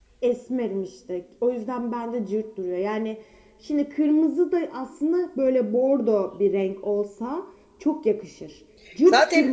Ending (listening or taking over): taking over